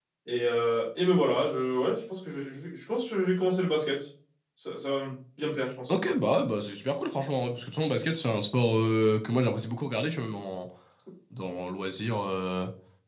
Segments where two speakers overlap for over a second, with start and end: none

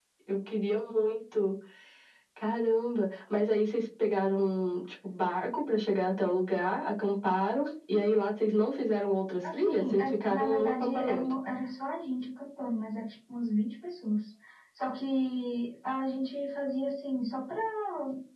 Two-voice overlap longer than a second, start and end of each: 9.5-11.2

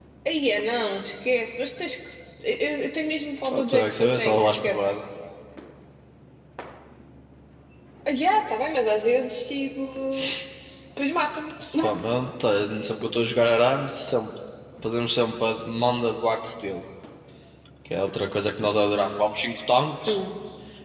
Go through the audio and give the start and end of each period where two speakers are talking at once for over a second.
3.4-4.9

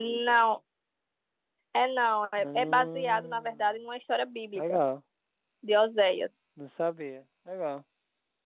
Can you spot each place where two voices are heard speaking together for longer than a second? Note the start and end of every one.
2.4-3.8

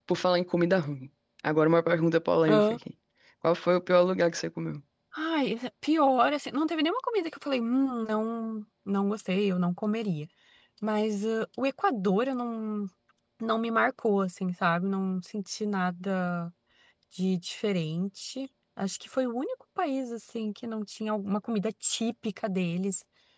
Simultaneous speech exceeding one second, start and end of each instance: none

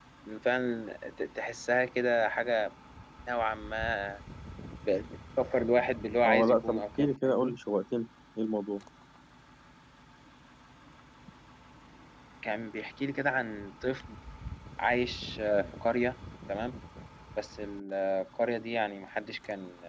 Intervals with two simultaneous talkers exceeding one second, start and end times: 6.2-7.6

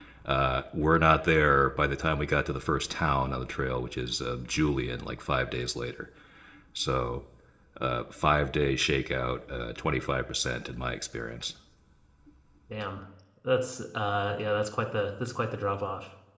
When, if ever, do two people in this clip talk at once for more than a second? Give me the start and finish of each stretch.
none

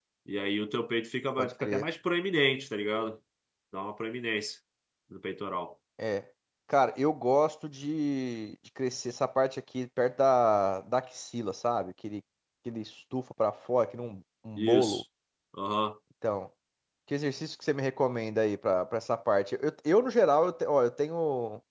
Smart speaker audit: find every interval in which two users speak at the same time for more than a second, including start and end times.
none

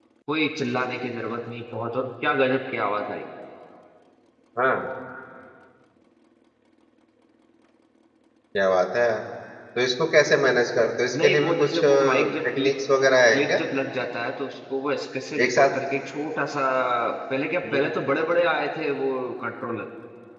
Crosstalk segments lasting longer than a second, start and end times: 11.2-12.7

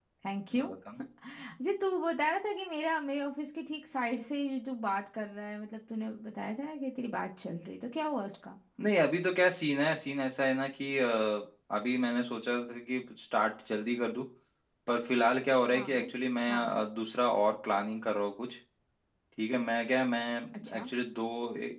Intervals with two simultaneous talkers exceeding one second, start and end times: none

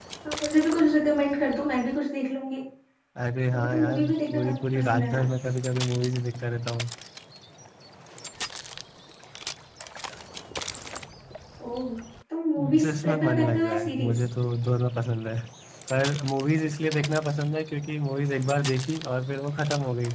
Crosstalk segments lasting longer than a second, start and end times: 3.5-5.2, 12.6-14.2

